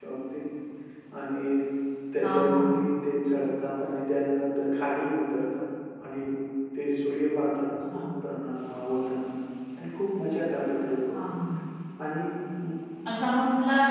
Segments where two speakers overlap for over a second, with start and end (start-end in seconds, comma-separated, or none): none